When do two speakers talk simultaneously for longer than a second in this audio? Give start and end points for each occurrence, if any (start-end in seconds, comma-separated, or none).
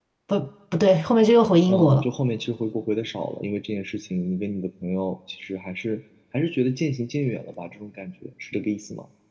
none